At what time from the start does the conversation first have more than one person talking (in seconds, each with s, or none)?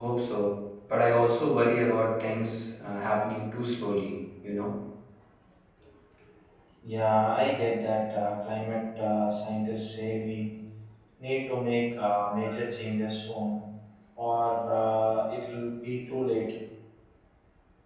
none